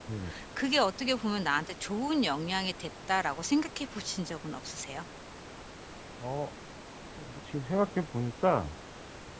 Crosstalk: none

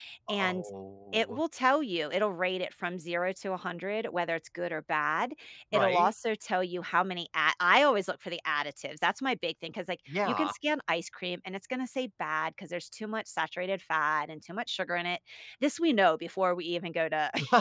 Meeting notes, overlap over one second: none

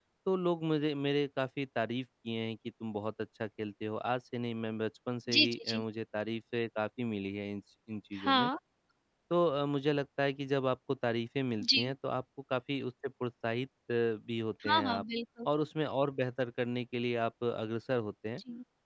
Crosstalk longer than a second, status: none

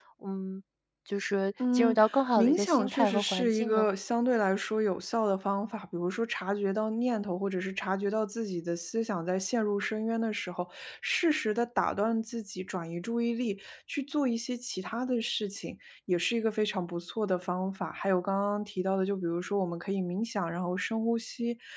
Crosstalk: present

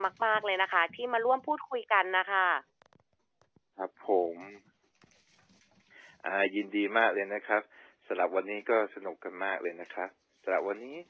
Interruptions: none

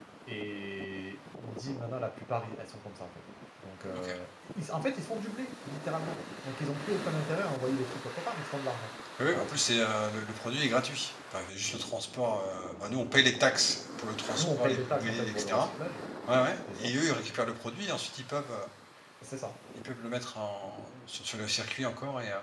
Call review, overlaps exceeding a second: present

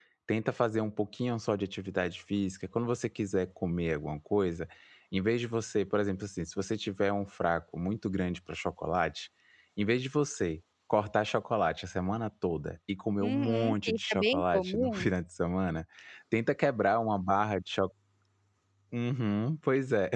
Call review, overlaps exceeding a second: present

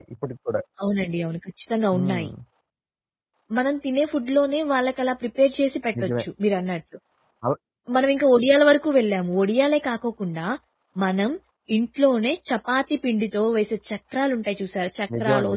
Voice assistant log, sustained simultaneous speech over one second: none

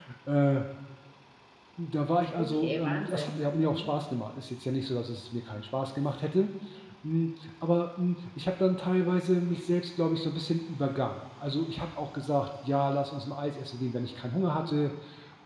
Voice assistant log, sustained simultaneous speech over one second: present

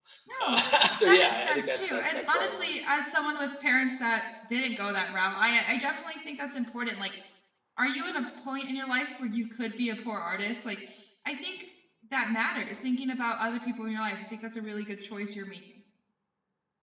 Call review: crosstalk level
present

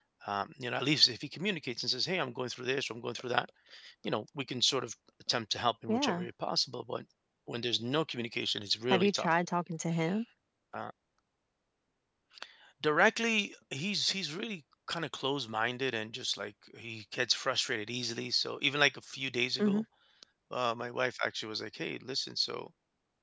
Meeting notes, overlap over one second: none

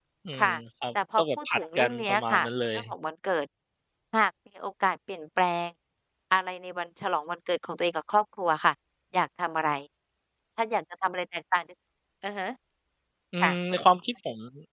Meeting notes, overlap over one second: present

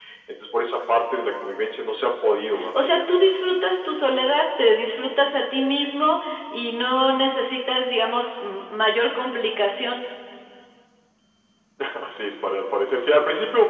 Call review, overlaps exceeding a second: none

